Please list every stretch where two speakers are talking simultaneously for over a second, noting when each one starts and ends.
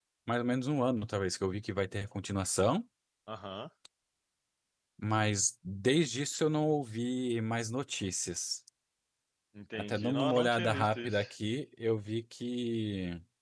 9.8-11.2

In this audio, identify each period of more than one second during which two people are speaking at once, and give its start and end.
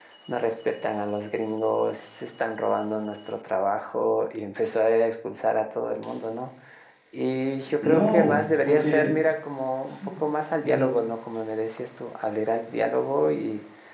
7.8-9.2

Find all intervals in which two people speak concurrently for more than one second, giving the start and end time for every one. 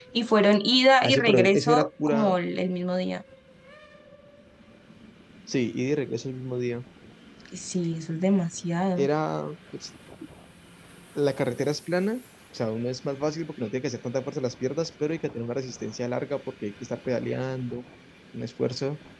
1.0-2.3

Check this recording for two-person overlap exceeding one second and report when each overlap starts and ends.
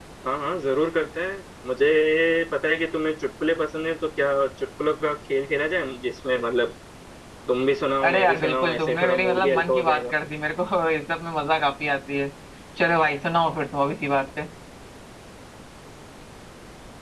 8.1-10.1

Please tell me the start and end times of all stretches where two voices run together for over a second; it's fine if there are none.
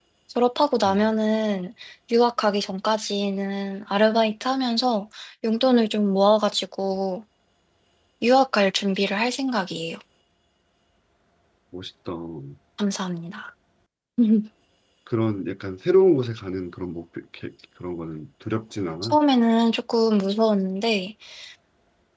none

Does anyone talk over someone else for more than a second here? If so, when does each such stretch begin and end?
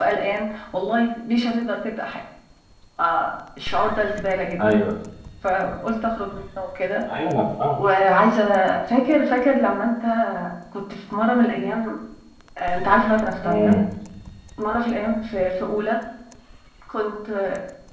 none

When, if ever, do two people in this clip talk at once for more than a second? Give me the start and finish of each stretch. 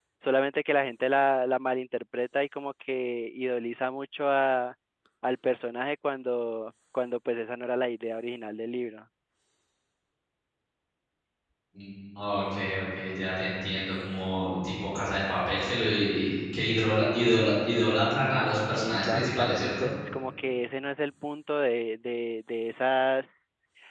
18.7-19.9

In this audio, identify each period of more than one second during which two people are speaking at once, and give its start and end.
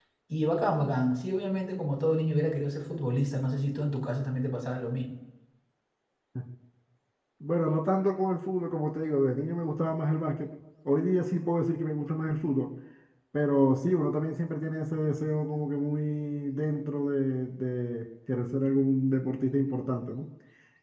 none

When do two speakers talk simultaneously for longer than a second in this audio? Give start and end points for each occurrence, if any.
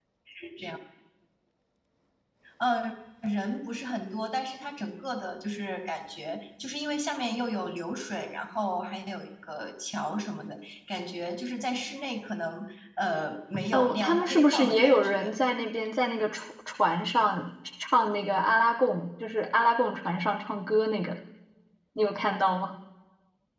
13.7-15.3

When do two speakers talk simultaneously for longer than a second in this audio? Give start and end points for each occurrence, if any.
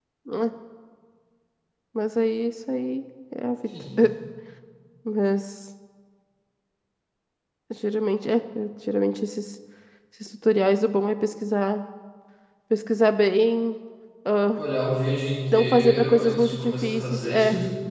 15.5-17.4

